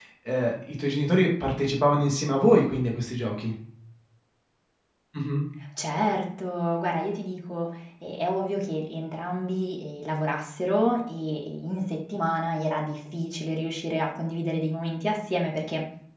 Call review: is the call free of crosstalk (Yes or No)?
Yes